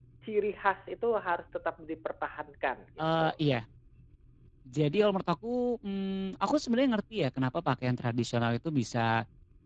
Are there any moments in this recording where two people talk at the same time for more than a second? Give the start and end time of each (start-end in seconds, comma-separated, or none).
none